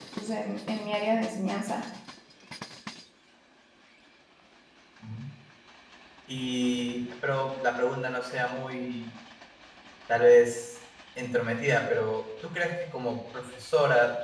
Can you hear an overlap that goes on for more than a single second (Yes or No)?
No